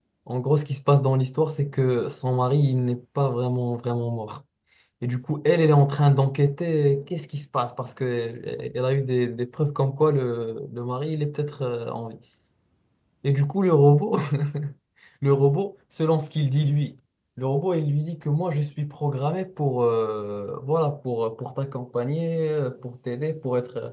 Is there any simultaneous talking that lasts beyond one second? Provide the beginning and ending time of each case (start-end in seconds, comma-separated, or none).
none